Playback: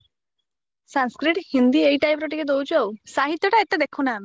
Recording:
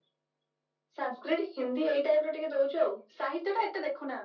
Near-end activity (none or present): none